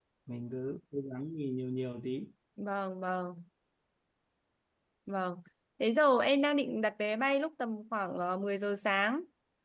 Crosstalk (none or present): none